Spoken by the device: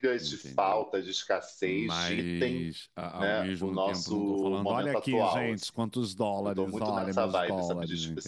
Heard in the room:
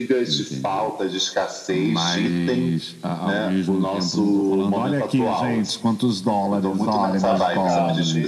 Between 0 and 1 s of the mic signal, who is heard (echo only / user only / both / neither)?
echo only